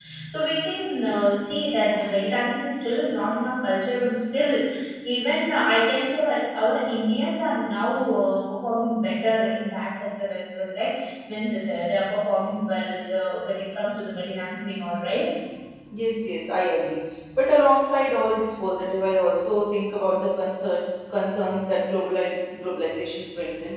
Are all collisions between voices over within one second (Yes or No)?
Yes